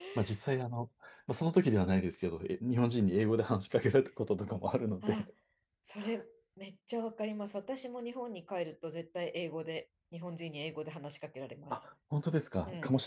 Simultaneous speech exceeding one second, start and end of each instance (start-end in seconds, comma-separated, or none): none